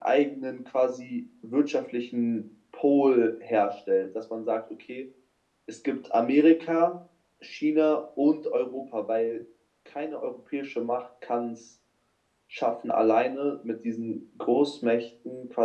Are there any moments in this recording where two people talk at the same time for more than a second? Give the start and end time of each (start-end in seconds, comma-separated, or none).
none